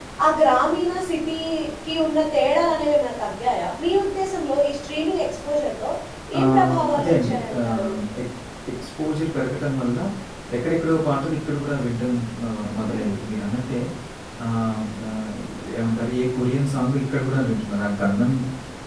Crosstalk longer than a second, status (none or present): present